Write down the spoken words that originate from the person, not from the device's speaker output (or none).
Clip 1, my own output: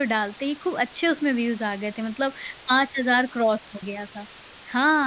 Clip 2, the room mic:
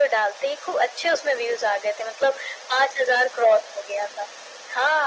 none